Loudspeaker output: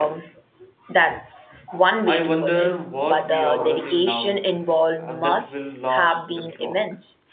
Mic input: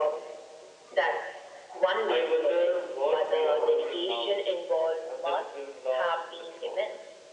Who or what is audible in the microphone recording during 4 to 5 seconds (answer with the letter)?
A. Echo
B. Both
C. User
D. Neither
A